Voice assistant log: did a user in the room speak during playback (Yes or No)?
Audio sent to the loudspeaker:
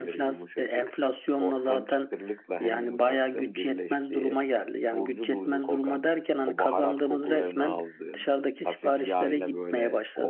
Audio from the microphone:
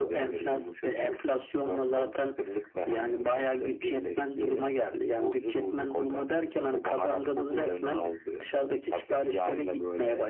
No